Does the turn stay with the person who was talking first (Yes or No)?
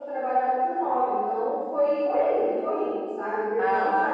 Yes